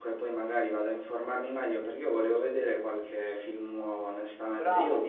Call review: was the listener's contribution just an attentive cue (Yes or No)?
Yes